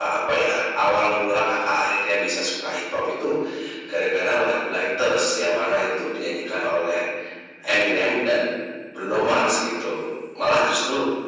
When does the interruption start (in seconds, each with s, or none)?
none